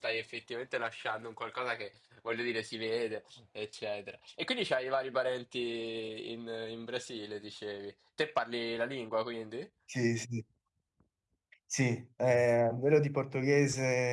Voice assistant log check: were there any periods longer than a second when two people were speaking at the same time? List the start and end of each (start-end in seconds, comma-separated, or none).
none